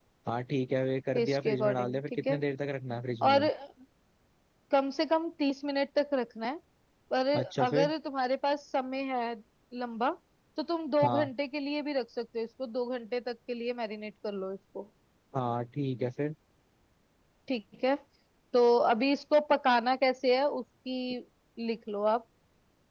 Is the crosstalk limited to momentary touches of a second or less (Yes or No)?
No